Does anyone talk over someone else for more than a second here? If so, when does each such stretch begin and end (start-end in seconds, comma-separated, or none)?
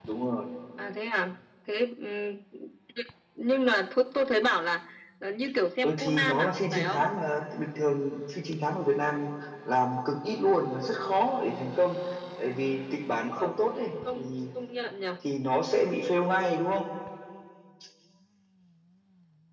5.8-7.0